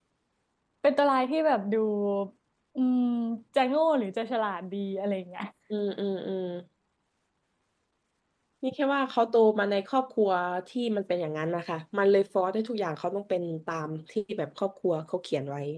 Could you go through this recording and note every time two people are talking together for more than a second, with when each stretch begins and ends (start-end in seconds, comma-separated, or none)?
none